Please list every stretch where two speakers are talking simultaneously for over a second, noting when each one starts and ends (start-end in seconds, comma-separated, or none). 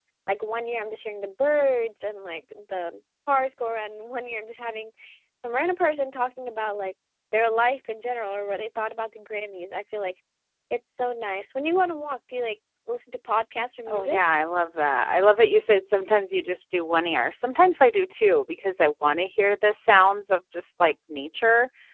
none